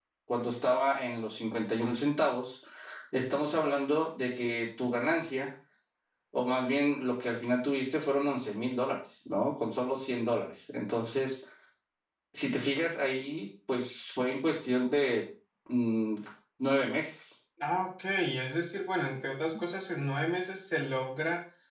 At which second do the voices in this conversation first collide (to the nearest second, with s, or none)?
none